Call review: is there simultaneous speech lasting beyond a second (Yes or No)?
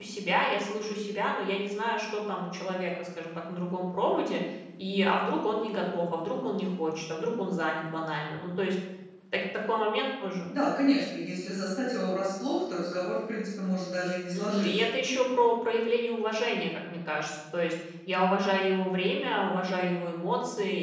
No